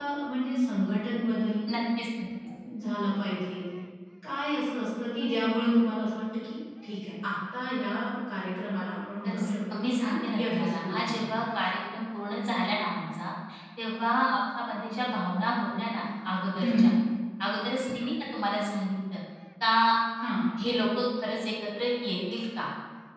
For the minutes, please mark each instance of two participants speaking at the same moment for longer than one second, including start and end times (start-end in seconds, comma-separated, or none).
9.2-11.2